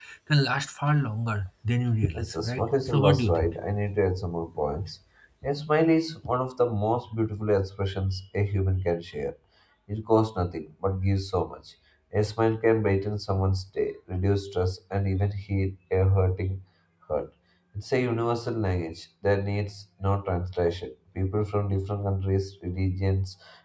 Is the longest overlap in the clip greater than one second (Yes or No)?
Yes